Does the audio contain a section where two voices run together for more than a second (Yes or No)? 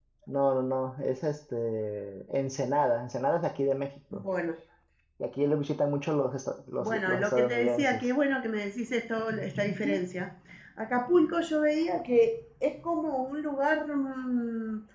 Yes